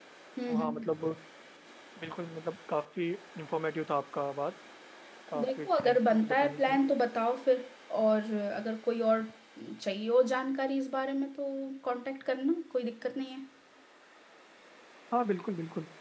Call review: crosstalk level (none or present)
present